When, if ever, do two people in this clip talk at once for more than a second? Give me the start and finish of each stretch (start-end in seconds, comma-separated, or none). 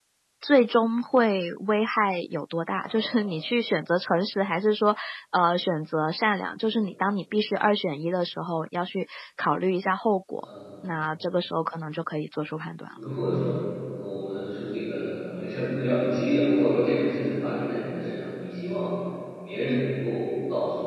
none